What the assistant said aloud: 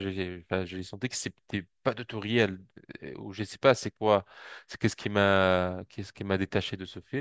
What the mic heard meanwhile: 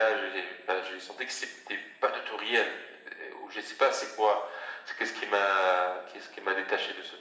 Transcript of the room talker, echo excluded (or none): none